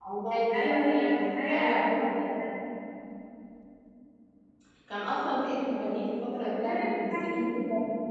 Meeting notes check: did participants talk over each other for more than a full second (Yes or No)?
Yes